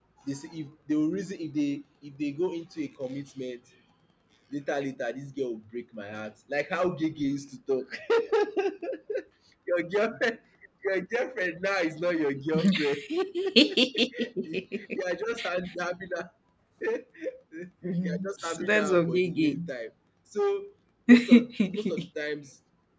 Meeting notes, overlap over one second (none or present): present